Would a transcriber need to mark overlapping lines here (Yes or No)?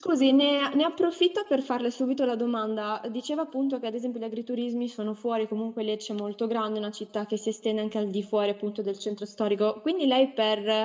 No